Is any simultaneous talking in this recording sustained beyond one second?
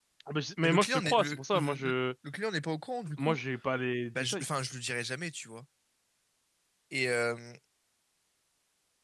Yes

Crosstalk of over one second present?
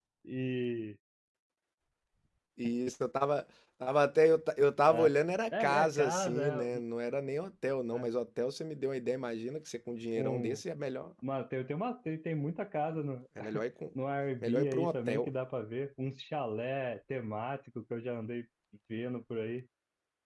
Yes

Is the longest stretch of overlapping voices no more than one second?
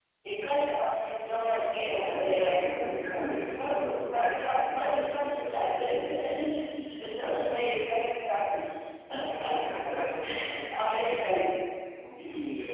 No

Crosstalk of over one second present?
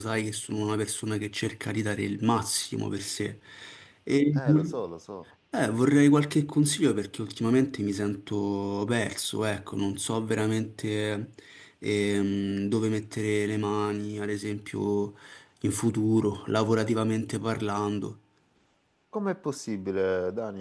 No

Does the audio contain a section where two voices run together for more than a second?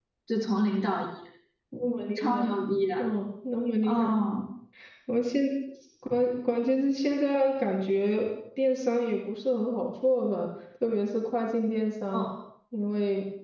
No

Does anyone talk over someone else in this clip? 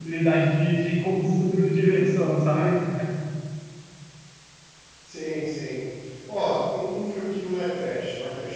No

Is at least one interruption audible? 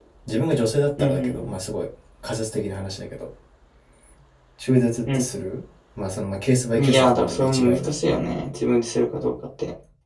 Yes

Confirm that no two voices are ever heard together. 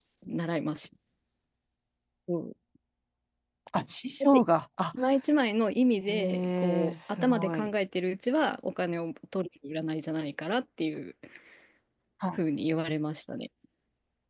No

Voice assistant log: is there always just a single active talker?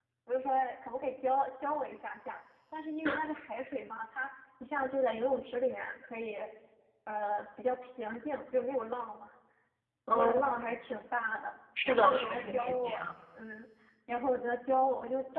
No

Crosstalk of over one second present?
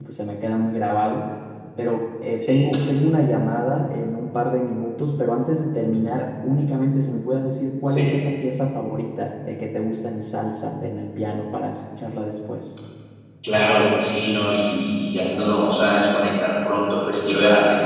No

